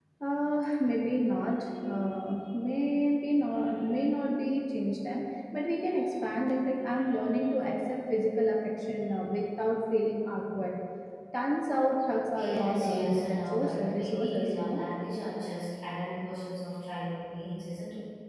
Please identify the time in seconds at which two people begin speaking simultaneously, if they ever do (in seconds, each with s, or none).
12.3 s